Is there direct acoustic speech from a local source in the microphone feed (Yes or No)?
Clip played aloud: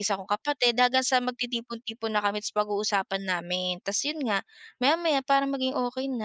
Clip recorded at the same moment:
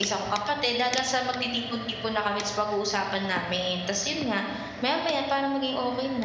No